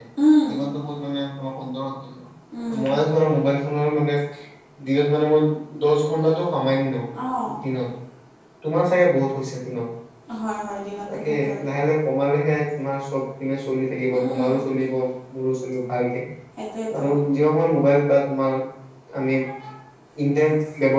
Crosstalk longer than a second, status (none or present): none